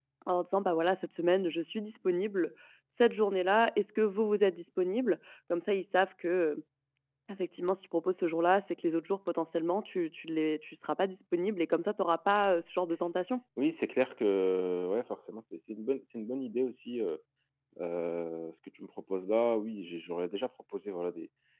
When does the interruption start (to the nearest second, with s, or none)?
none